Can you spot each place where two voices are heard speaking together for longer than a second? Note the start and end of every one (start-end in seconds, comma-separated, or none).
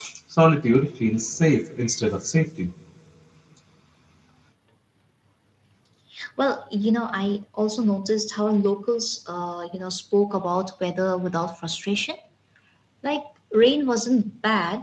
none